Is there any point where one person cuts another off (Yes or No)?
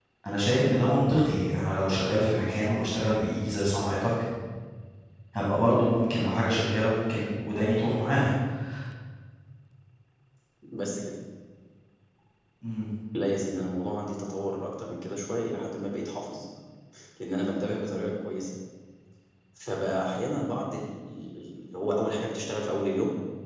No